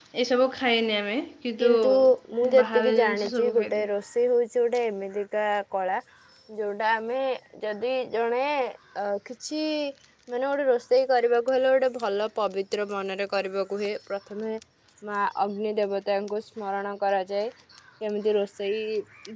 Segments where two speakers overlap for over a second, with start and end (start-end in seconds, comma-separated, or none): 2.6-3.9